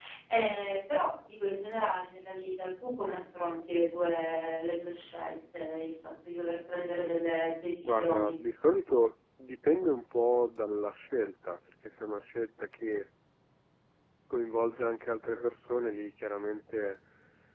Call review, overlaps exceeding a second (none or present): none